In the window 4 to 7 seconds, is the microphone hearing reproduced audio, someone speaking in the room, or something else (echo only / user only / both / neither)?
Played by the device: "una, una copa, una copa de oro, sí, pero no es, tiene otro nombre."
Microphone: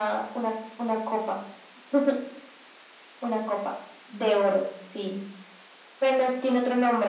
echo only